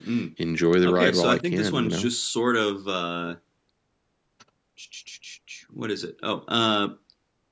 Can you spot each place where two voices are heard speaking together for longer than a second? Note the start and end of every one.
0.8-2.1

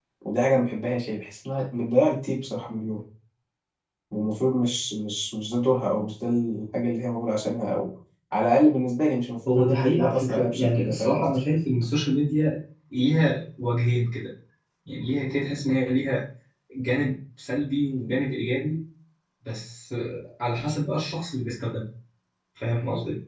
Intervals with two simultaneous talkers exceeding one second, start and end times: 9.5-11.4

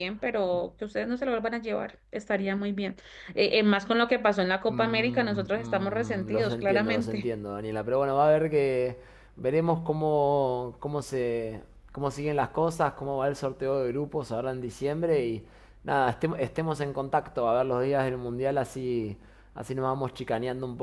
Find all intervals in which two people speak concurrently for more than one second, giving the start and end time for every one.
4.7-7.3

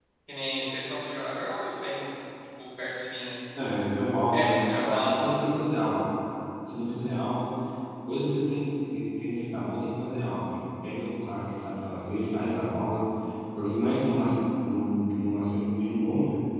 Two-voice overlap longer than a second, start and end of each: 4.3-5.5

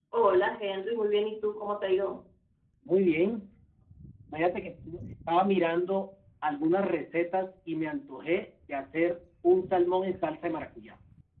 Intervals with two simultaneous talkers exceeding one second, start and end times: none

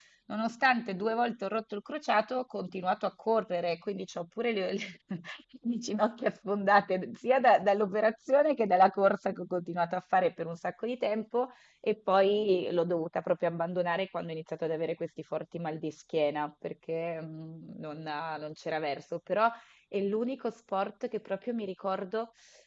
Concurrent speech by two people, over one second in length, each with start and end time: none

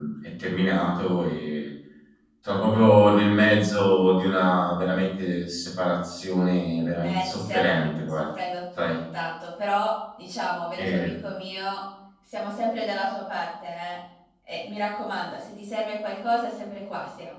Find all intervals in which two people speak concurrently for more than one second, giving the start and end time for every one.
7.0-8.2

